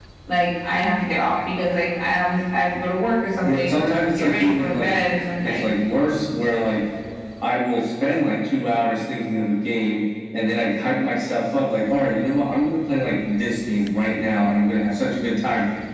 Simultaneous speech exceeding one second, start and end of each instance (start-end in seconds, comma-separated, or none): 3.4-4.9